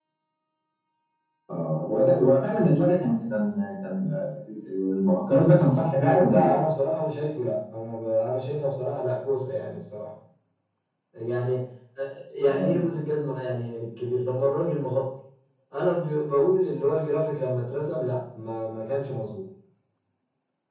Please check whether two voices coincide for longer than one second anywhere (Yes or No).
No